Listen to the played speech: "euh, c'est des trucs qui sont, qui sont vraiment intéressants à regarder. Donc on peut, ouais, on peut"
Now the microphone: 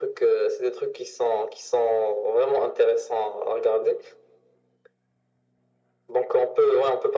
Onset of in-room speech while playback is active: none

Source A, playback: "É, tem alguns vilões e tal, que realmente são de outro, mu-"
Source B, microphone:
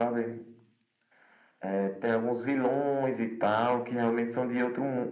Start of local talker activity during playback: none

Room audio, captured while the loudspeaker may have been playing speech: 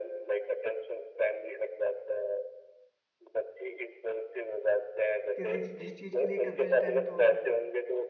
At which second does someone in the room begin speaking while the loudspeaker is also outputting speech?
5.4 s

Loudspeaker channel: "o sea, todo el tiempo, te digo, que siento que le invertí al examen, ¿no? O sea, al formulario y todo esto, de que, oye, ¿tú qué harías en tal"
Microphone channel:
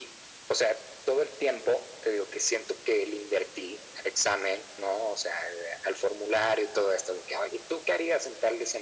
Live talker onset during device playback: none

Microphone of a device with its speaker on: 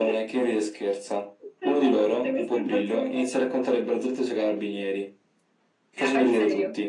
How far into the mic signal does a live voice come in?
none

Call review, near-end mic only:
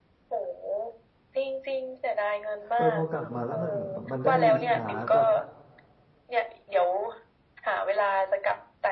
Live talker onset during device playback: 2.7 s

